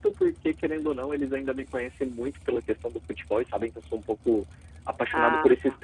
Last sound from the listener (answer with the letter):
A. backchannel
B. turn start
A